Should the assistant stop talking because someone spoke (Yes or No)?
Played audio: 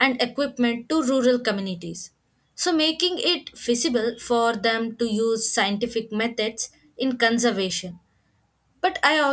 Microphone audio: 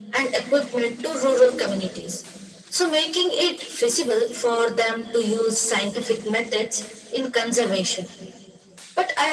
No